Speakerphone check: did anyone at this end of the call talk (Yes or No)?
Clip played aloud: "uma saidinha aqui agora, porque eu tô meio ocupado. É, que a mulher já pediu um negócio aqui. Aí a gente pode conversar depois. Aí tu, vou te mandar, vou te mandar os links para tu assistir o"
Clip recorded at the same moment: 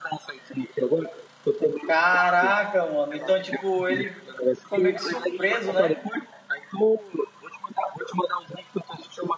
Yes